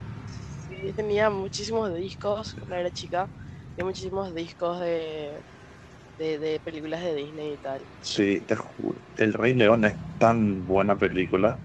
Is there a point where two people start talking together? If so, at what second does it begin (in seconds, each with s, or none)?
none